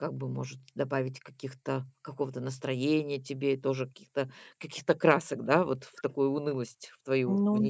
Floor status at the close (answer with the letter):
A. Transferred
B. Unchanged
A